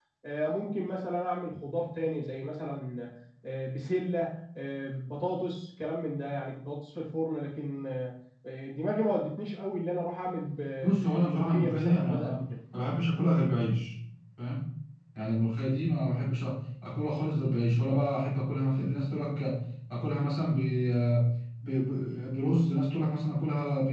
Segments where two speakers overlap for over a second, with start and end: 11.0-12.4

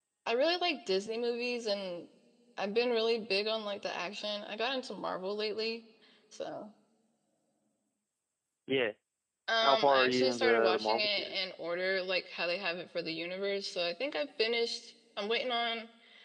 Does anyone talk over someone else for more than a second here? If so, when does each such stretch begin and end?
9.6-11.4

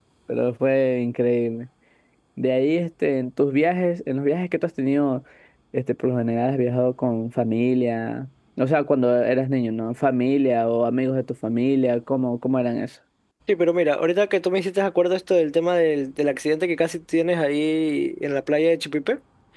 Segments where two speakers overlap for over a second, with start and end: none

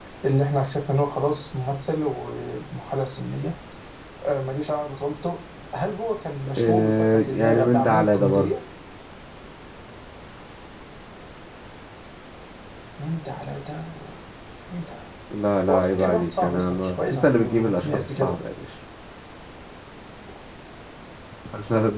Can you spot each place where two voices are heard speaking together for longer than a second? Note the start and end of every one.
6.6-8.5, 15.7-18.4

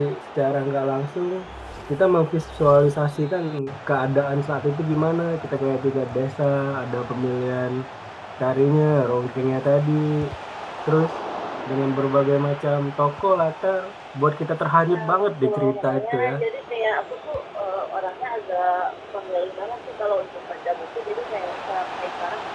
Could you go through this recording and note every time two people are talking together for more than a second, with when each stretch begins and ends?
14.9-16.3

